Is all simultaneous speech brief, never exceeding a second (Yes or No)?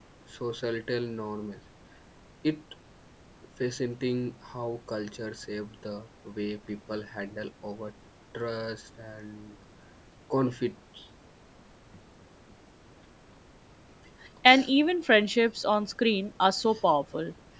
Yes